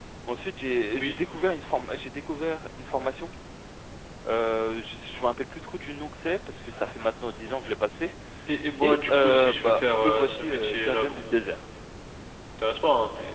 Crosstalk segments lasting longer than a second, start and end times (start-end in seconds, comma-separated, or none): 8.8-11.2